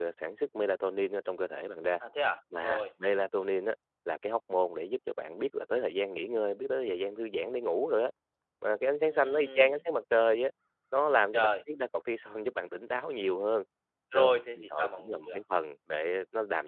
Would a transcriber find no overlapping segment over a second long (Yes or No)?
No